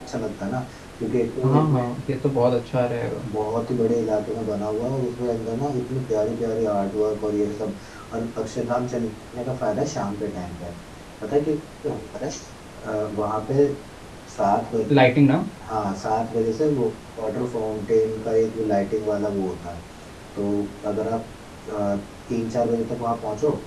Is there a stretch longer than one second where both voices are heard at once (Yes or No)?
No